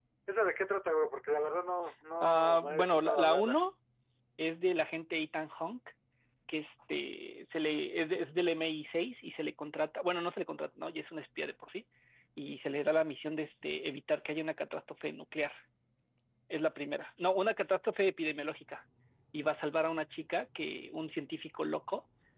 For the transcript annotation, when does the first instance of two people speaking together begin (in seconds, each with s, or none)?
2.2 s